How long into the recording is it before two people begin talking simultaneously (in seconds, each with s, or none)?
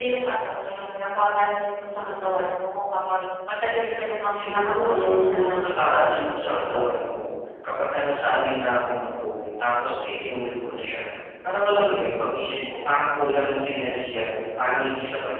4.3 s